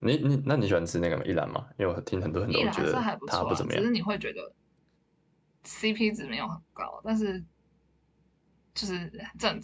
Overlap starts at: 3 s

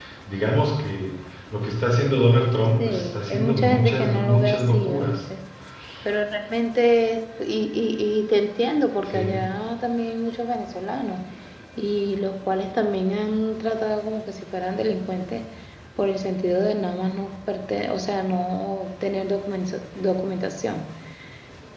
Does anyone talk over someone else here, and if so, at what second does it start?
3 s

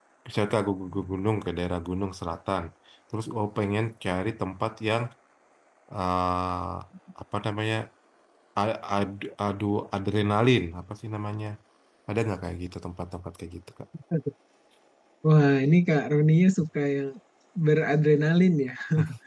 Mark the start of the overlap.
none

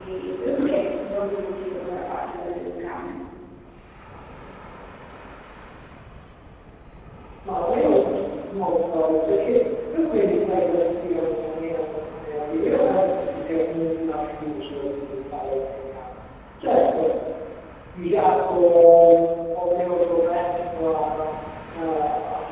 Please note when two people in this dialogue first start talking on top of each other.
none

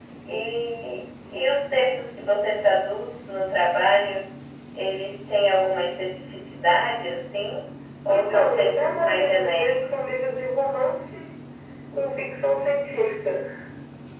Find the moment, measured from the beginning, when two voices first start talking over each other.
8 s

